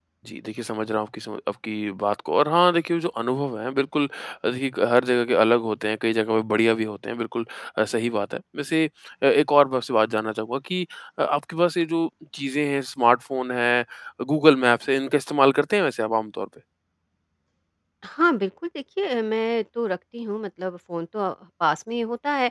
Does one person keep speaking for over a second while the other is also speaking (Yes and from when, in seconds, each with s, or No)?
No